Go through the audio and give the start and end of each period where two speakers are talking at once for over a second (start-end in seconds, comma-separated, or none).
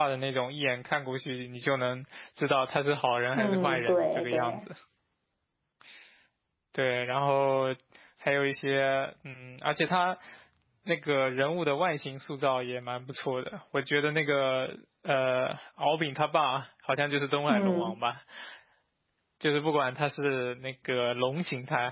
3.3-4.6